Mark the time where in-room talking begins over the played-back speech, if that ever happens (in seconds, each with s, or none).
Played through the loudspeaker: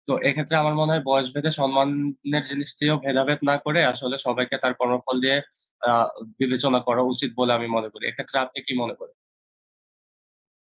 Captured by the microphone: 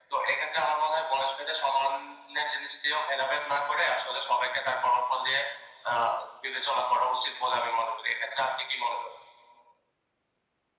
none